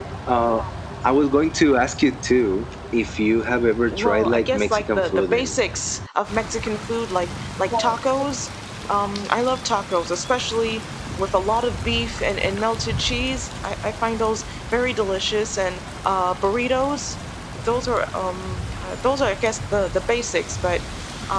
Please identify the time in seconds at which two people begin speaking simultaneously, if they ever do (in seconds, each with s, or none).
3.9 s